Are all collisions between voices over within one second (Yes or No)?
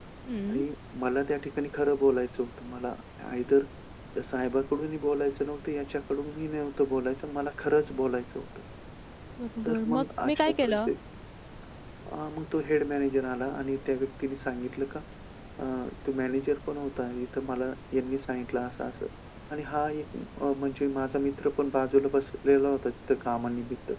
No